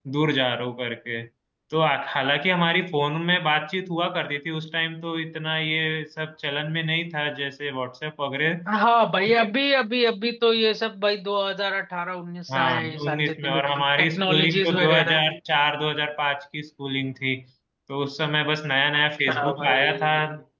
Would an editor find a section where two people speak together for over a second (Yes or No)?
Yes